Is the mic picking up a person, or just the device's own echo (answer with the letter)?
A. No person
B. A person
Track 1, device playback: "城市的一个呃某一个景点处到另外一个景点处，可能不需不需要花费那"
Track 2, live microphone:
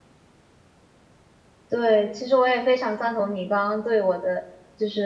B